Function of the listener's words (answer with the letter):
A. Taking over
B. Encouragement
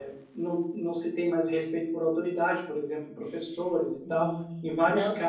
A